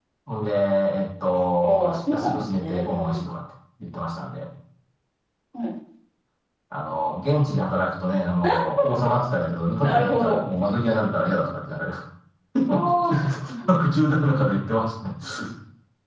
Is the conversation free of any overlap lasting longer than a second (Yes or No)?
No